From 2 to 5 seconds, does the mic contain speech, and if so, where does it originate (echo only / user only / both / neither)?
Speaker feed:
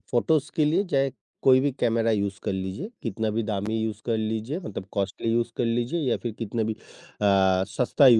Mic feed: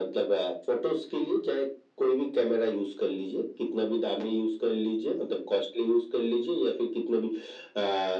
echo only